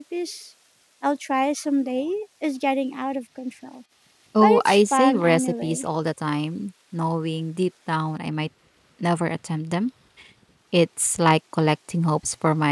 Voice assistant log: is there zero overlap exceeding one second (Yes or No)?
No